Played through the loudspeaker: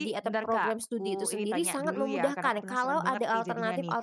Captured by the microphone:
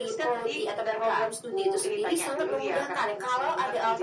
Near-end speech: none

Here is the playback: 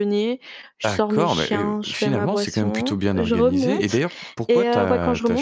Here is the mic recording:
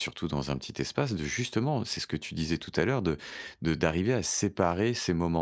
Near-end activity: present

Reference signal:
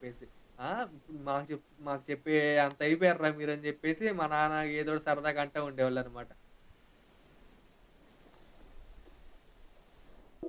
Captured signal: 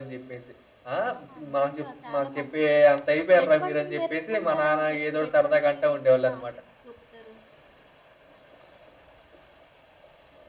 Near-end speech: present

